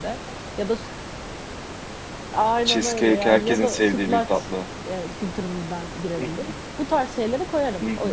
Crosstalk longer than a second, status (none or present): present